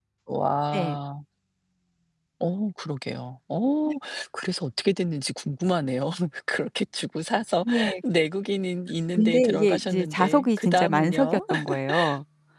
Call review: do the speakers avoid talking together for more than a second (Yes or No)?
No